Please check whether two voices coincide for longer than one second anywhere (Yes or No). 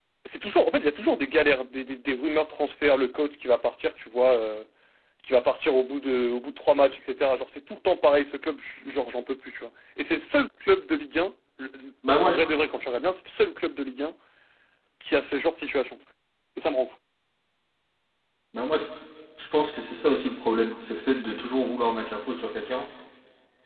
No